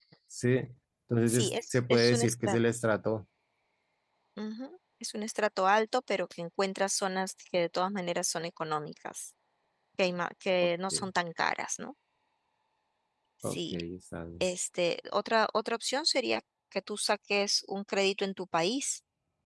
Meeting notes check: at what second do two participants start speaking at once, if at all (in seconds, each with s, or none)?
1.3 s